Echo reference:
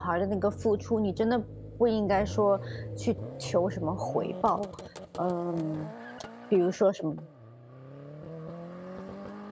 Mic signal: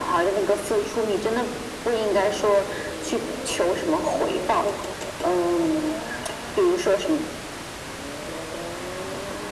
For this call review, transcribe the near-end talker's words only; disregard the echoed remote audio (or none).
none